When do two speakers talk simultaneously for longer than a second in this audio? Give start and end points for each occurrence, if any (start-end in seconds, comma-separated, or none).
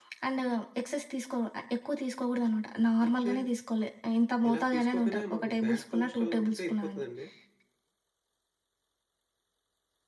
4.5-7.0